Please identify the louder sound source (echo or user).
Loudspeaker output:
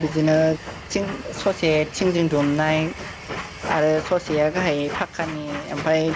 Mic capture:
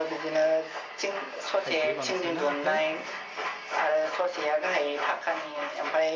echo